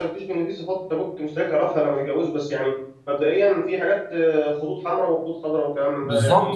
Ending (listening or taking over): taking over